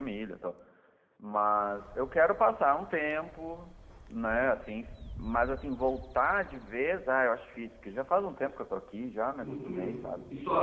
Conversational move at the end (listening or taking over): taking over